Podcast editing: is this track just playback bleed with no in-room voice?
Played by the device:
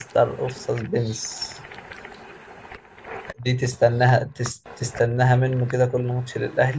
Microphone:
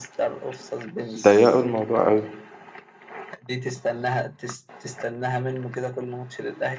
No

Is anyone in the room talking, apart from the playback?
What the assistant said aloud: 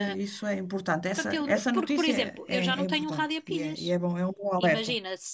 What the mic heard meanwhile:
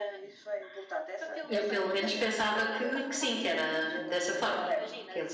Yes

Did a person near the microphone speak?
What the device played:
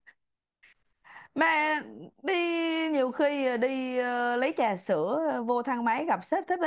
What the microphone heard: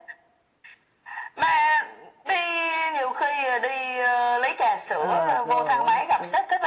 Yes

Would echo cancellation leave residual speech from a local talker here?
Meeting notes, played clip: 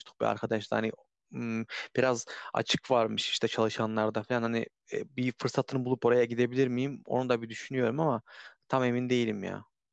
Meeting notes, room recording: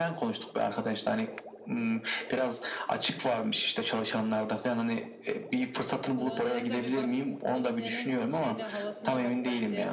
Yes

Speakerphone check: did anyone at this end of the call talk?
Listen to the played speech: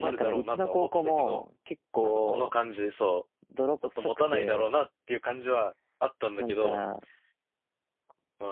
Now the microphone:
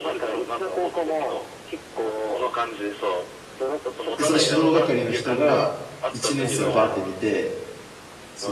Yes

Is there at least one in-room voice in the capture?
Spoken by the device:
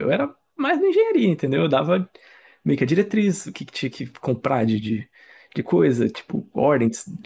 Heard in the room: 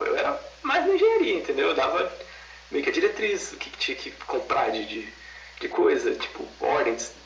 No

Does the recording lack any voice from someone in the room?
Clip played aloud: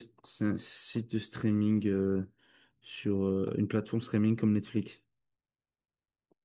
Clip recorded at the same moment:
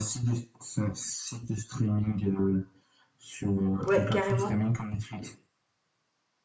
No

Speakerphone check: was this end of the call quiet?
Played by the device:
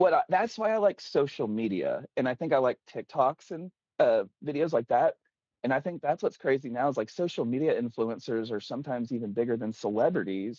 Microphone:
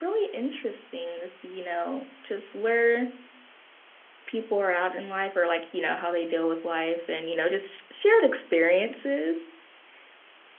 No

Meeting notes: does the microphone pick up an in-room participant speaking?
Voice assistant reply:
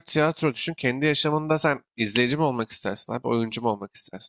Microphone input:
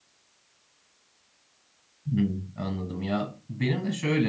Yes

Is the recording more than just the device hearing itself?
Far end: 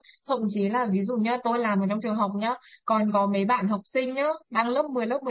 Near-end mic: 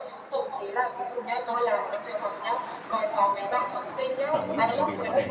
Yes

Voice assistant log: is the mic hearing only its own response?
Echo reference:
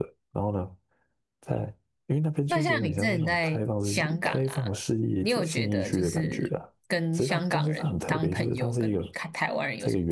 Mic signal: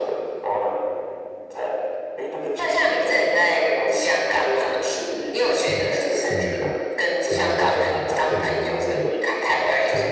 No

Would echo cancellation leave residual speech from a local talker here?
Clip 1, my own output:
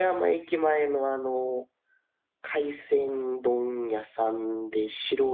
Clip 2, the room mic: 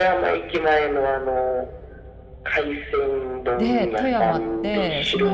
Yes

